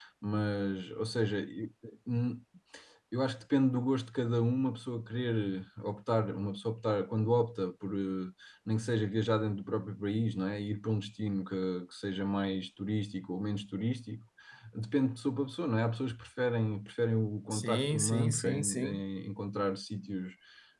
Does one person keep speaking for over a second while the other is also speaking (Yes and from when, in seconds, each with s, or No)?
Yes, from 17.5 s